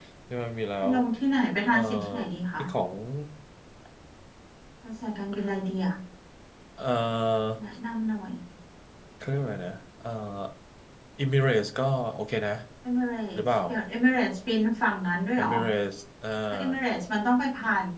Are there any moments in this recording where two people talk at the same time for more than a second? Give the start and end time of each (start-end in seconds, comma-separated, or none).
none